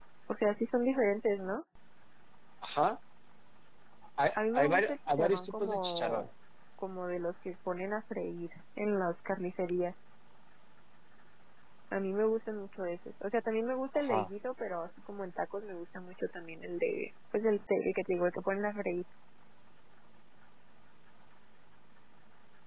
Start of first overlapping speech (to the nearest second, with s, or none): 4 s